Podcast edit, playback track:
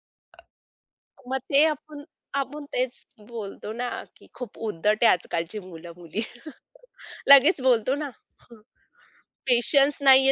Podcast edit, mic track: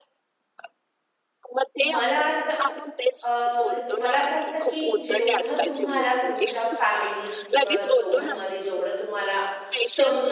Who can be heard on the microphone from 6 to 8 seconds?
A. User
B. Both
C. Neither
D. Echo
B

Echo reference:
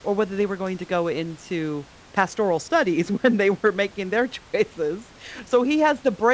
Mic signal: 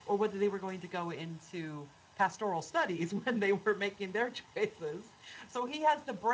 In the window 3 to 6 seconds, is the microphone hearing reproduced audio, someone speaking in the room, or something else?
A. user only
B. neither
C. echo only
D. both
C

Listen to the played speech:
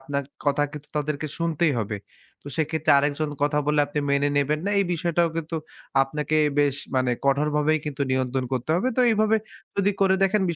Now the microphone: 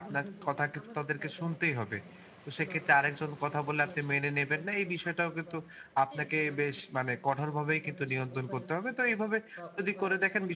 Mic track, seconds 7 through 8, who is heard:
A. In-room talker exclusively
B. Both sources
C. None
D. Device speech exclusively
B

